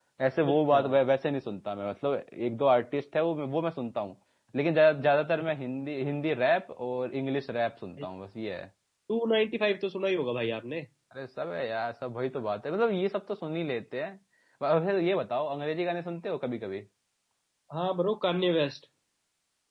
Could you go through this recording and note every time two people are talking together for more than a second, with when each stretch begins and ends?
none

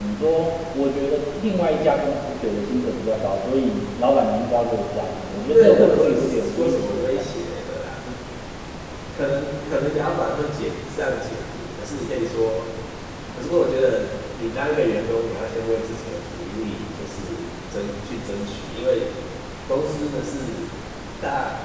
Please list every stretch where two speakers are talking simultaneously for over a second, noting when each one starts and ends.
5.5-7.2

